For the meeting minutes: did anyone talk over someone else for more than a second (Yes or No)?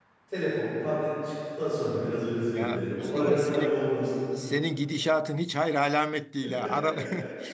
Yes